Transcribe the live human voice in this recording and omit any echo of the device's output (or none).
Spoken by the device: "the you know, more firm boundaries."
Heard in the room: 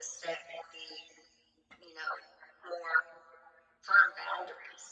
none